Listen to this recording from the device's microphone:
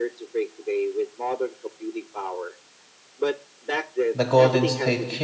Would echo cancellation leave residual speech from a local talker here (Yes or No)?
Yes